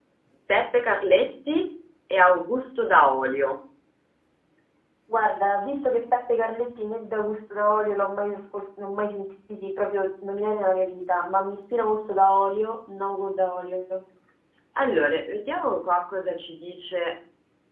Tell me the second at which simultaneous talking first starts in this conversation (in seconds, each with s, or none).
none